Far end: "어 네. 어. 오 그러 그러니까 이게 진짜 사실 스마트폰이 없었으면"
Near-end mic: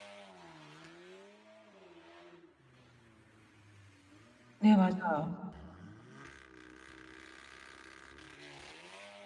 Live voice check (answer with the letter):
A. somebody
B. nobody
A